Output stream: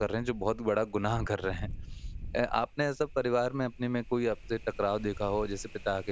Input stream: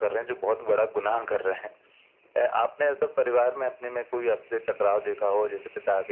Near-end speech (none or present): none